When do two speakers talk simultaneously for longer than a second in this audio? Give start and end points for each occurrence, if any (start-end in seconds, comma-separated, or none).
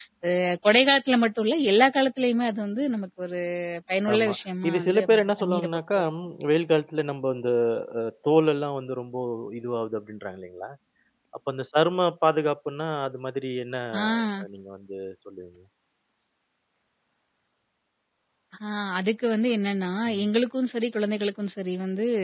4.7-6.1